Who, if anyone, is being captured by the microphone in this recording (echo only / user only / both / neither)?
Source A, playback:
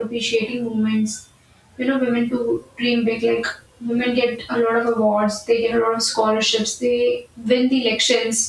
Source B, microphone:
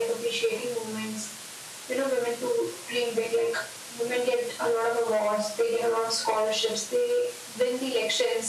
echo only